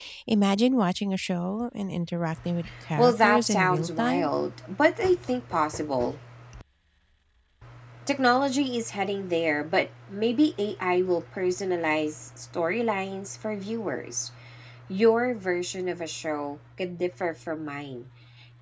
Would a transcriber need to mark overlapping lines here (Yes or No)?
Yes